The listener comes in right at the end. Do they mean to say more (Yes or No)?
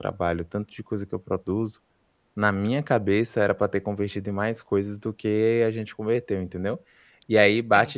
No